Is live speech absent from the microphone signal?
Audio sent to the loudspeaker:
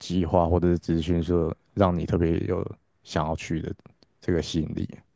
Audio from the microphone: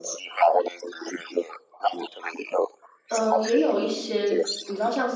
No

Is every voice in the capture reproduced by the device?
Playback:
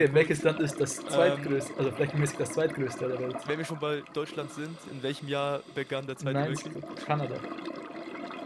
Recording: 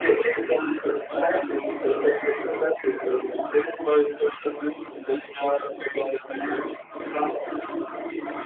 Yes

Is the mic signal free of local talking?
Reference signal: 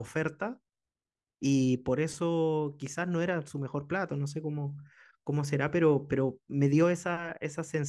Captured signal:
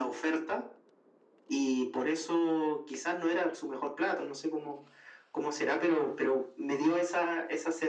Yes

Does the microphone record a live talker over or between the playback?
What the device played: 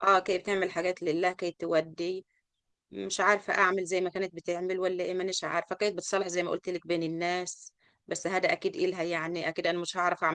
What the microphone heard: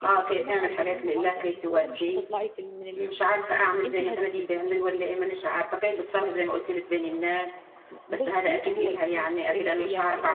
Yes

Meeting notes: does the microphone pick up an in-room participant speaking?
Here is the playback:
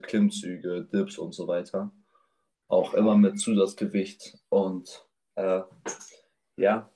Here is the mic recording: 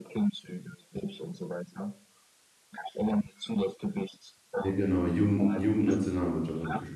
Yes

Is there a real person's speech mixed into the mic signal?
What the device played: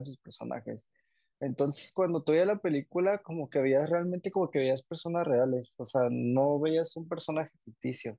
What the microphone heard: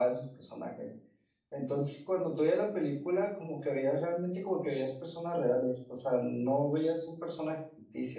No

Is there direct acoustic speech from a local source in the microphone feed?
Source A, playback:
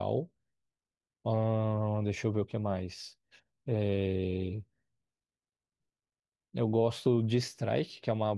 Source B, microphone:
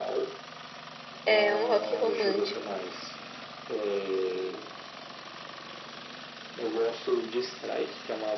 Yes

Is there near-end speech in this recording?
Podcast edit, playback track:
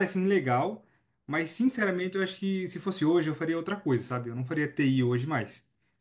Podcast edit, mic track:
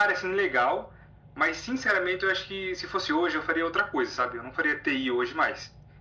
No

